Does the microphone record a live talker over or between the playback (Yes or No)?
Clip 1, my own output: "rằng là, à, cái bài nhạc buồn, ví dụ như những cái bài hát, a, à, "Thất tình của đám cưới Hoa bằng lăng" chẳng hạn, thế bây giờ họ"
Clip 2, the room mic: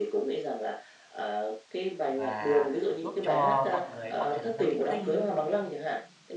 Yes